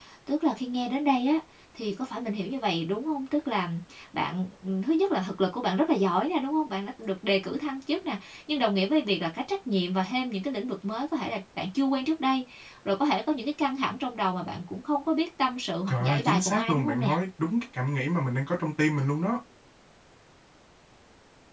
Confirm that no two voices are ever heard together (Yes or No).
No